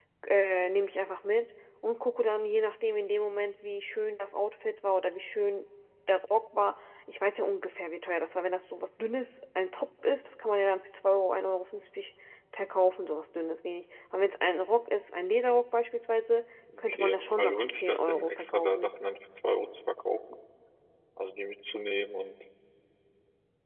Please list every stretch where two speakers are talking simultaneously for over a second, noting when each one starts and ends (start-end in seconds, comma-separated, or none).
16.8-18.9